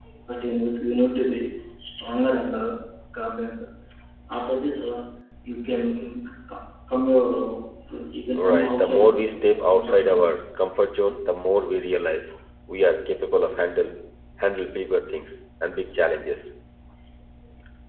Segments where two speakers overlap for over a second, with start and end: 8.4-10.2

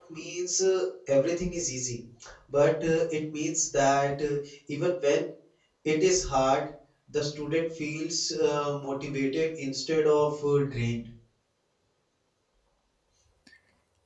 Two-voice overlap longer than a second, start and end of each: none

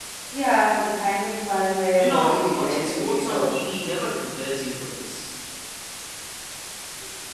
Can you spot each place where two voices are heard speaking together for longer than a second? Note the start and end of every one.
2.0-3.5

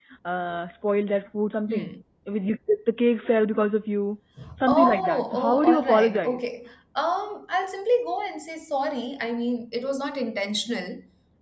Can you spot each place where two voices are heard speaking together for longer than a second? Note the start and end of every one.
4.7-6.4

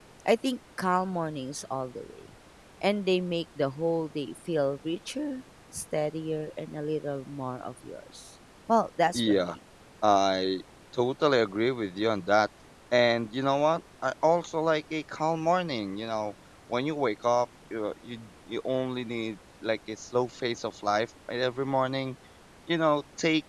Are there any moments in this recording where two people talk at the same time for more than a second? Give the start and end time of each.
none

